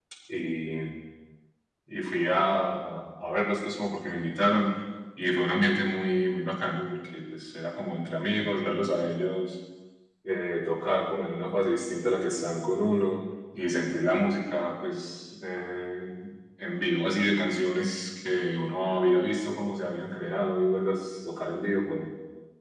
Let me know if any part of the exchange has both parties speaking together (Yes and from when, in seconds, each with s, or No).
No